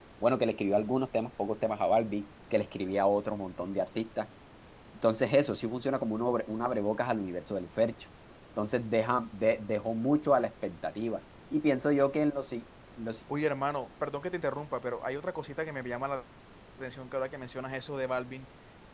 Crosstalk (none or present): none